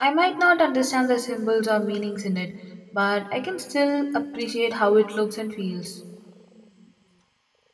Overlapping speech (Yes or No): No